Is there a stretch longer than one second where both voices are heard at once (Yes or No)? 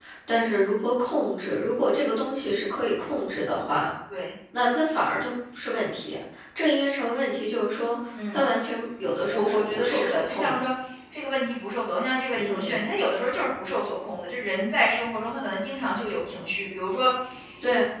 Yes